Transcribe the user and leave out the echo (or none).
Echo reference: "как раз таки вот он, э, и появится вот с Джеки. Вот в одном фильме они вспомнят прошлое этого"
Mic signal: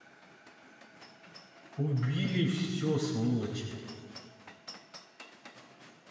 убили все сволочи.